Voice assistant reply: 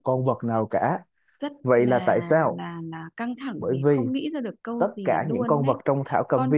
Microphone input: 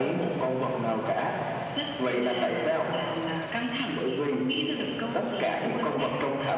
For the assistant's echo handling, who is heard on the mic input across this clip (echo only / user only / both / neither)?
echo only